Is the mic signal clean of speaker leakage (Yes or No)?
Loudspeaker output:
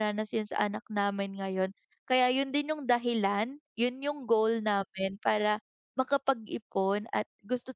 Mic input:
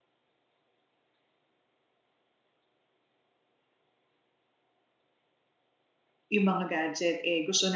Yes